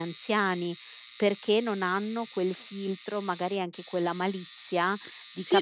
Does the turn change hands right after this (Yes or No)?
Yes